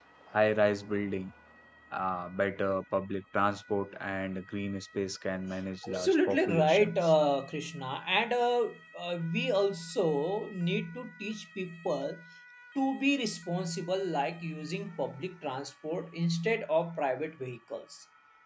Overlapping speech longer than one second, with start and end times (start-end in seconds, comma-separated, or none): 5.9-7.1